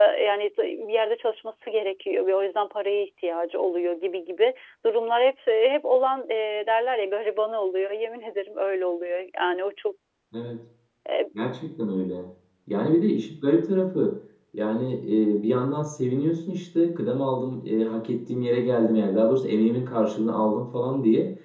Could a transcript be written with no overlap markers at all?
Yes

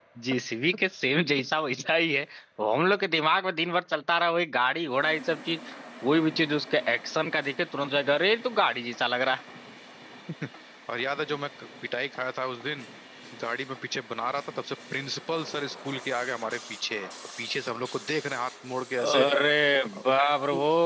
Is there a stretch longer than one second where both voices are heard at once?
No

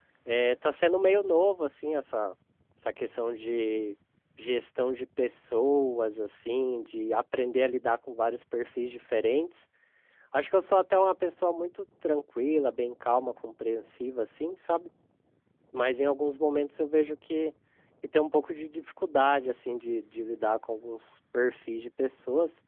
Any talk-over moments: No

